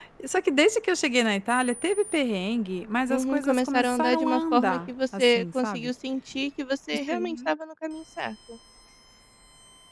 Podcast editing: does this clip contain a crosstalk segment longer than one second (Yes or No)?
Yes